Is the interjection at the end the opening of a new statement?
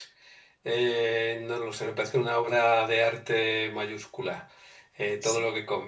No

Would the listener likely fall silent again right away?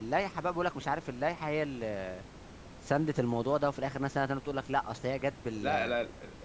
No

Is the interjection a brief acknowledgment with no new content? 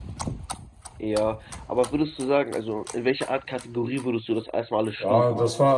No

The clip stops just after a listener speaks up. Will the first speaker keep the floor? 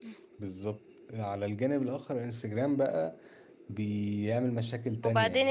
No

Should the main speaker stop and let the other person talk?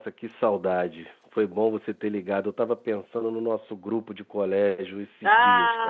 Yes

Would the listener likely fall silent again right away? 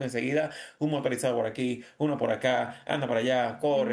No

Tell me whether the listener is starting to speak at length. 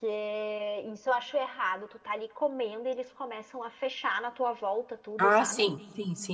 Yes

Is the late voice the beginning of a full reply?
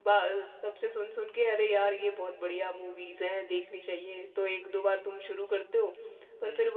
No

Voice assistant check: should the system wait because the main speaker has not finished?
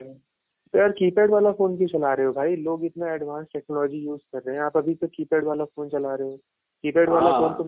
Yes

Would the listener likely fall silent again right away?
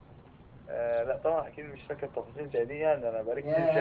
No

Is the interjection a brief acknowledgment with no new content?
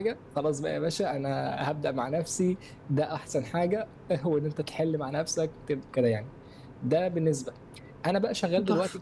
Yes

